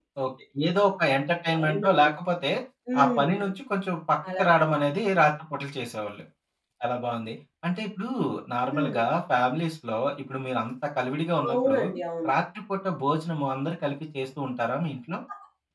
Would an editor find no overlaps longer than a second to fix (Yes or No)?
Yes